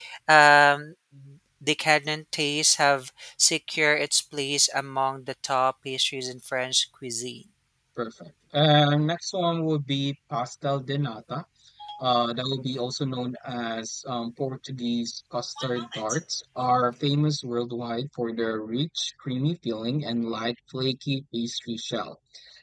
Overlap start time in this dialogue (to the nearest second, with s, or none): none